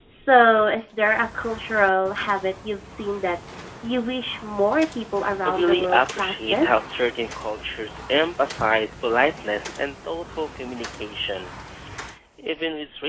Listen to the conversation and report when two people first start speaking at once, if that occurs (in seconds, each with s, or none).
5.4 s